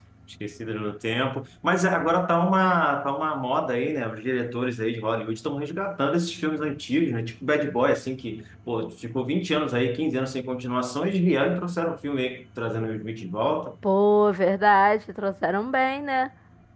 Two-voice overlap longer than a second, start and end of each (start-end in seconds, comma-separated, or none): none